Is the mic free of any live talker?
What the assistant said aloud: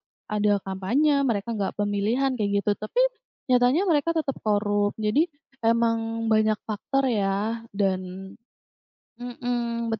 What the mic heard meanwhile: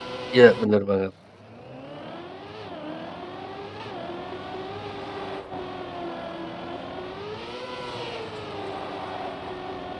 No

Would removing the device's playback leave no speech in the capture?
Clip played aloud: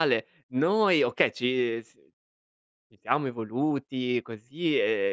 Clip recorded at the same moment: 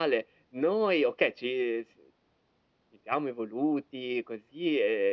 Yes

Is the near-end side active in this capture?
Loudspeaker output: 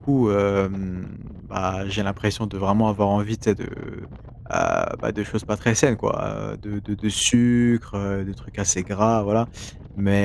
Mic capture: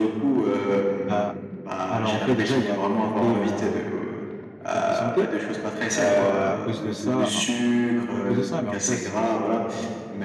Yes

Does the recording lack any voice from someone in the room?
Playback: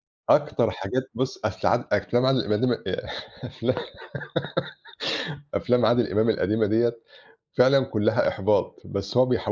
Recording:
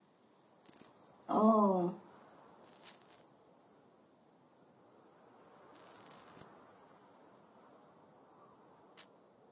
No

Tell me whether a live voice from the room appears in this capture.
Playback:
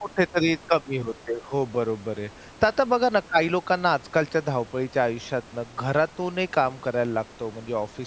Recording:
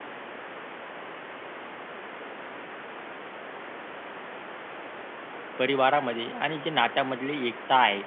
Yes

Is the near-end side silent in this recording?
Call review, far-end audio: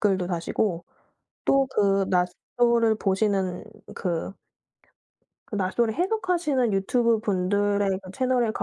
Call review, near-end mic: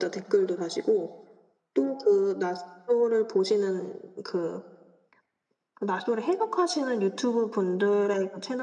Yes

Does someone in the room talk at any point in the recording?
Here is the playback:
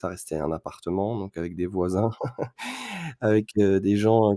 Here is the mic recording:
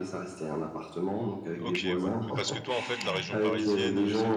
Yes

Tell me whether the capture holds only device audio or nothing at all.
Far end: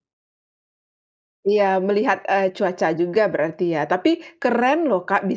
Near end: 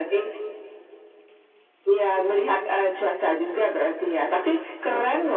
Yes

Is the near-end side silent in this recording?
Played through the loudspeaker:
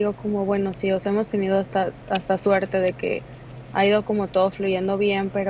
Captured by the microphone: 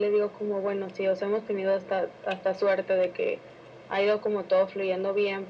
Yes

